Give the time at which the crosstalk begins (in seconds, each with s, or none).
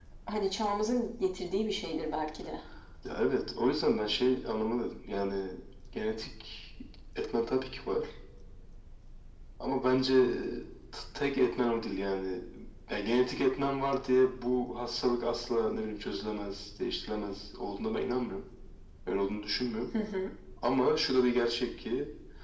none